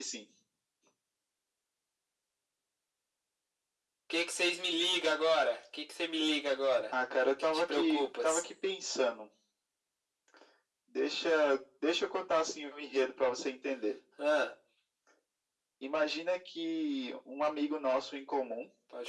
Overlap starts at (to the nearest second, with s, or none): 7 s